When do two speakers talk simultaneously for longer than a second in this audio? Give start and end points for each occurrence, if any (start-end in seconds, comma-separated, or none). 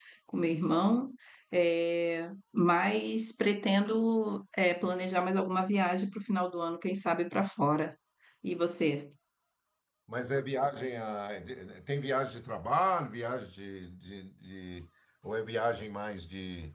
none